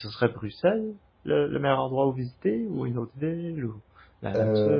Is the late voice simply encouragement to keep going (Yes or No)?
No